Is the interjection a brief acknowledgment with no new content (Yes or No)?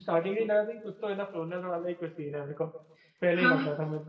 No